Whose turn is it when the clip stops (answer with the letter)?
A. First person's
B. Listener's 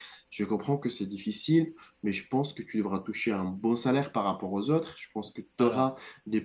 A